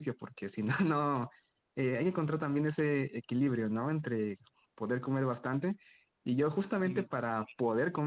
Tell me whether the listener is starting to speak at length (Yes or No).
No